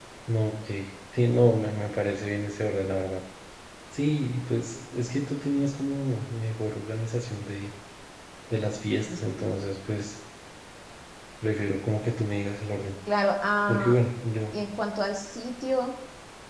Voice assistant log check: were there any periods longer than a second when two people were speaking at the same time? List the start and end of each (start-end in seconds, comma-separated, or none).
none